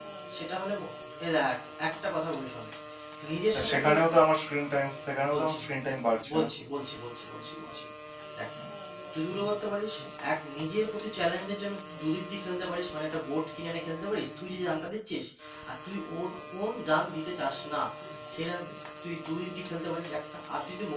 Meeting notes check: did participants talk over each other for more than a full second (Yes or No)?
No